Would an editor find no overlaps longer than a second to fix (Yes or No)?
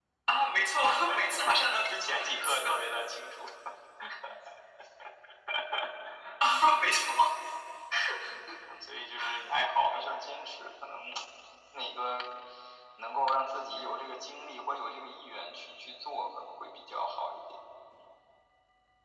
No